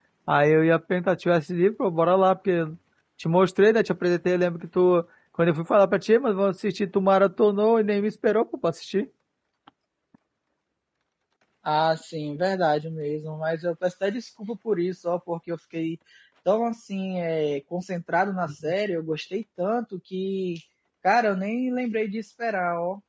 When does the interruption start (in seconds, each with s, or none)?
none